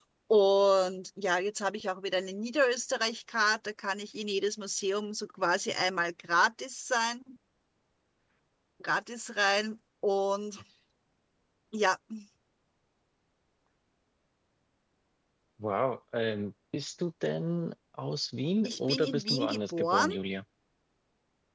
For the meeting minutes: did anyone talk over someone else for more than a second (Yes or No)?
Yes